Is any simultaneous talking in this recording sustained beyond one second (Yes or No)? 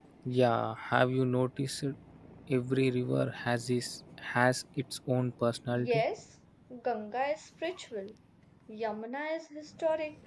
No